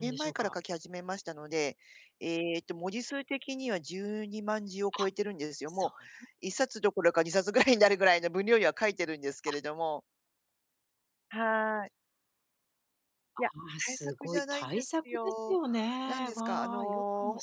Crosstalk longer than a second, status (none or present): present